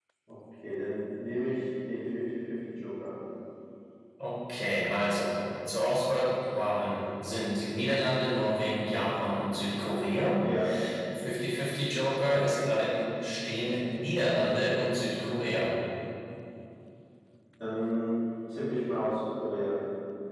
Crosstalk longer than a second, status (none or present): none